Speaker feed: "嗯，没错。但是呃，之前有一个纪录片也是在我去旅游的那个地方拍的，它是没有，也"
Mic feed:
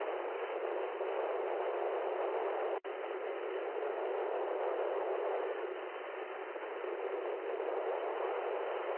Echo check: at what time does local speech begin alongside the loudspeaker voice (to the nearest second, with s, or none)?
none